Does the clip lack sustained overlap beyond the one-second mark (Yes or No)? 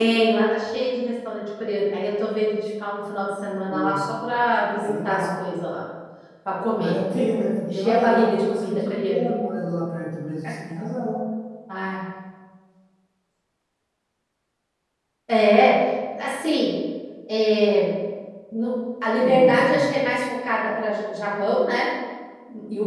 No